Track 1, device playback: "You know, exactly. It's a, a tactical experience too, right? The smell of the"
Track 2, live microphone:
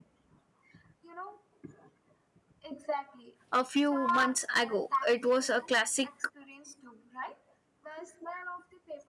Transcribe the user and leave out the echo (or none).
a few months ago. It was a classic